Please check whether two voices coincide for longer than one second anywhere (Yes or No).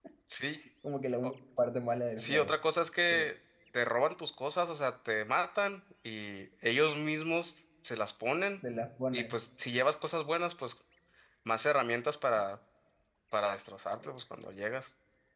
No